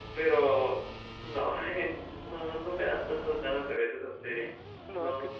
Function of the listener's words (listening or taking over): taking over